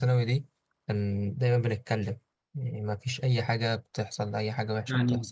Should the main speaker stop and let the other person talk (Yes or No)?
Yes